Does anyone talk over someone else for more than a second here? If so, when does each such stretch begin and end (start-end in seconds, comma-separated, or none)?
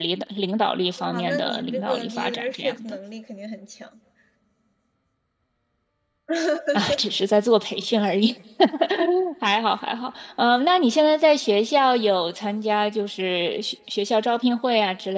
1.1-3.0